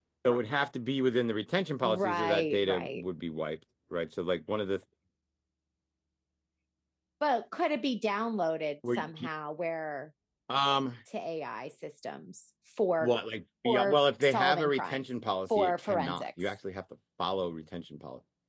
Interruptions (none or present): present